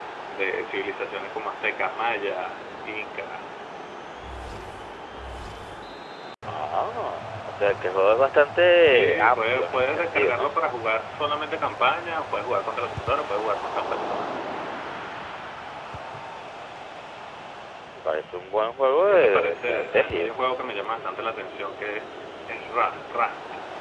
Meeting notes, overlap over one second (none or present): present